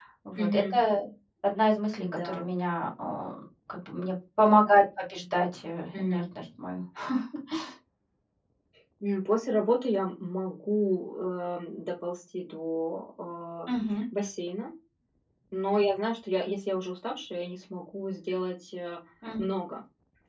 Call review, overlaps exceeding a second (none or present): none